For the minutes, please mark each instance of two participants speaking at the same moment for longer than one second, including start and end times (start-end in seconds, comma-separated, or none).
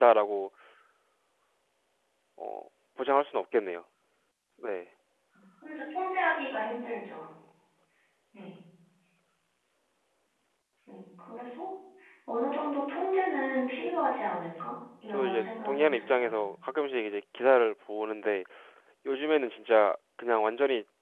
15.1-16.4